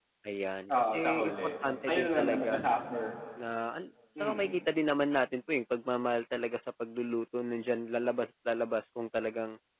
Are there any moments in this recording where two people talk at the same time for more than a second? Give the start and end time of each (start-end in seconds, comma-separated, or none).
0.8-2.6